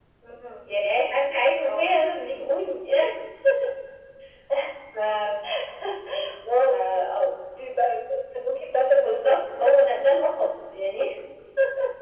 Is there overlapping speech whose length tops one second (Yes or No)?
No